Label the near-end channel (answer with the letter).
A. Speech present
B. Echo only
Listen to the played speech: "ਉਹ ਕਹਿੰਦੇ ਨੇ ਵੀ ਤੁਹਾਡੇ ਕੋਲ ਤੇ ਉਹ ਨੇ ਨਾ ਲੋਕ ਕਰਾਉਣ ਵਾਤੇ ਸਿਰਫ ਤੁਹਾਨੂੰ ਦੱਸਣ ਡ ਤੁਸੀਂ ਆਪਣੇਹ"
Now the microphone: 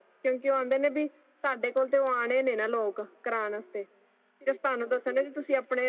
B